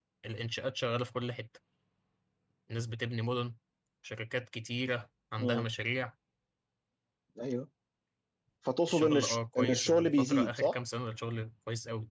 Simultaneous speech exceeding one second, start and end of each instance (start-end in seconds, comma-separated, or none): 8.9-10.8